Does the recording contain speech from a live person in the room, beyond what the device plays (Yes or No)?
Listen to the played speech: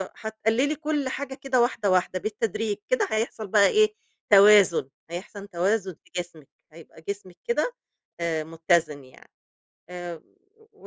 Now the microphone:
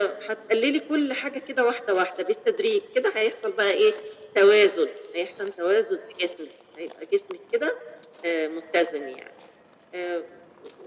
No